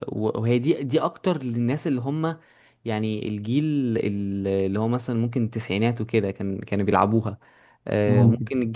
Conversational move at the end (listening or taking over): listening